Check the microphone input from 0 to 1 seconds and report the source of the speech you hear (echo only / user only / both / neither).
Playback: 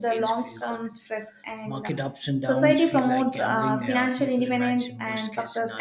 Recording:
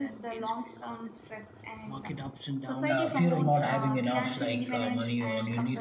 echo only